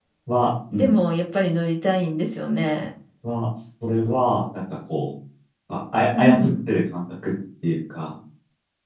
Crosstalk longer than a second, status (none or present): none